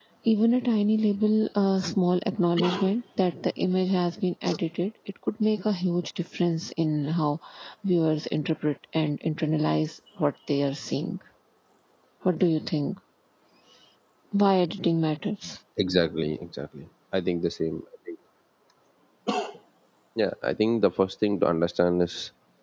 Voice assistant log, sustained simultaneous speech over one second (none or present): none